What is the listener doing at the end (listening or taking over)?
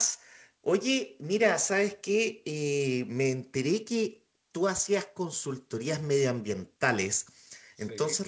listening